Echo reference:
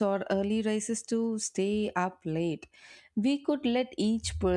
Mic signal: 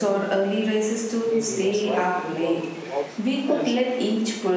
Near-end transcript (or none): Maybe that's why teamwork works best